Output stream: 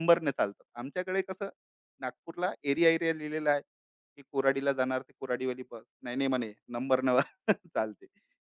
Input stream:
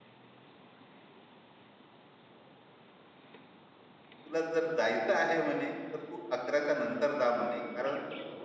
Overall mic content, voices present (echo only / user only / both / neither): user only